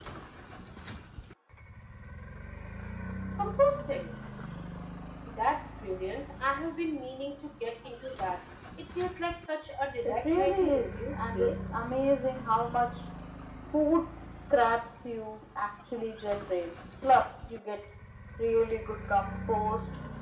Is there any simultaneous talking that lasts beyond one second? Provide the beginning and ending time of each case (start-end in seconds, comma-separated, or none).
10.1-11.5